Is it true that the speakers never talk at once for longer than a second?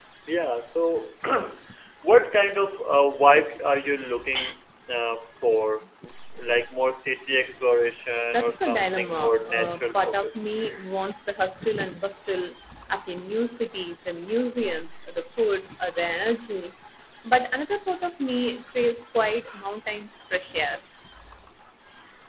No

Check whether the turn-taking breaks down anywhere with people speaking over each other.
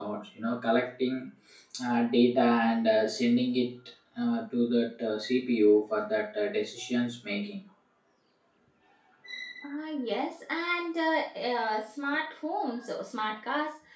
No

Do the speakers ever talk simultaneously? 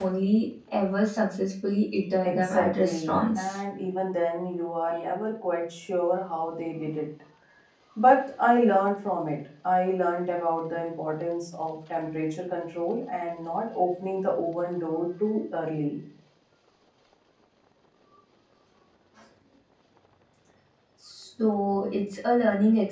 Yes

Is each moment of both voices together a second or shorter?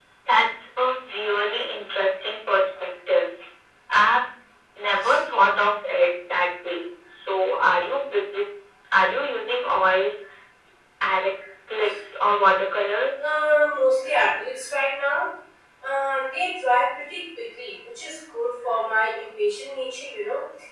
Yes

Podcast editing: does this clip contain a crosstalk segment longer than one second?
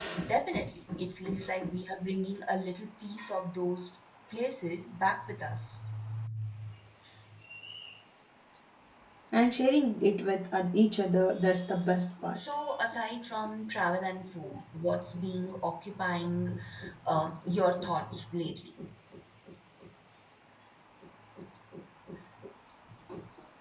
No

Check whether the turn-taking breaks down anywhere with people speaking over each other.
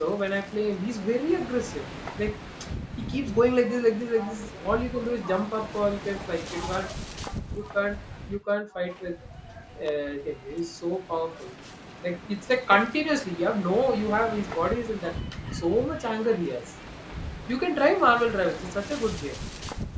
No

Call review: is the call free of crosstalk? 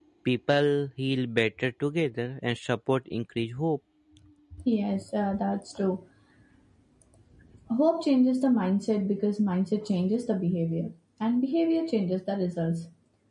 Yes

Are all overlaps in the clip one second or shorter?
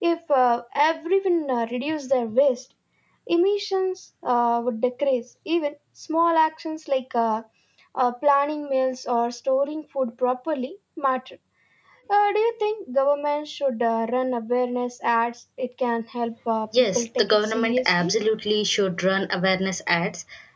No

